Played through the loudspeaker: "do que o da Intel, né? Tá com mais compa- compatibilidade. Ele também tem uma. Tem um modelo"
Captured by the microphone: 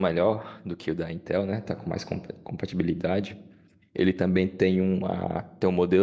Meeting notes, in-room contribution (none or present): none